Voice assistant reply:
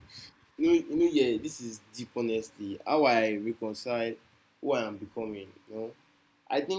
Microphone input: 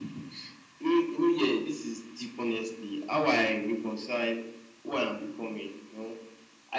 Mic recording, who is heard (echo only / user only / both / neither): echo only